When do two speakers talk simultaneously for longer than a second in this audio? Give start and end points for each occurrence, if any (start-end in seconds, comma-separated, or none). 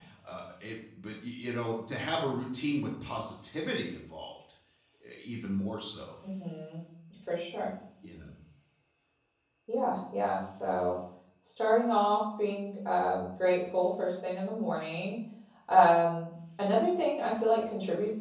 none